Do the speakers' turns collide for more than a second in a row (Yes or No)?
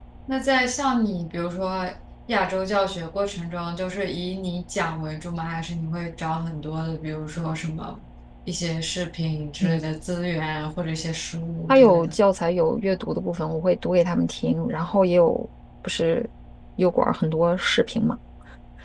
No